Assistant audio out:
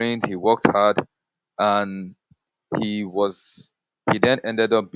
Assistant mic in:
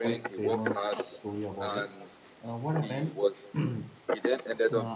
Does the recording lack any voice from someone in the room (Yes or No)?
No